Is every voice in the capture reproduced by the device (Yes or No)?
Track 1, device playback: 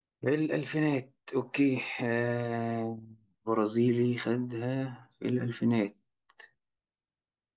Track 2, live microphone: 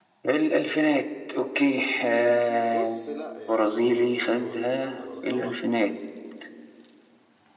No